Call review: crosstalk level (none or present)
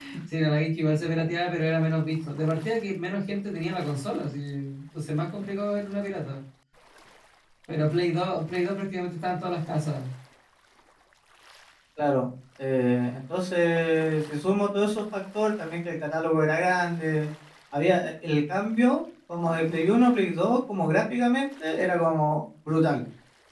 none